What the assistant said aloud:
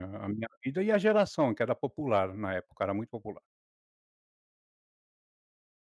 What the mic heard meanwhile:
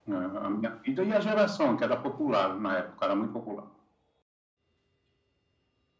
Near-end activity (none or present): none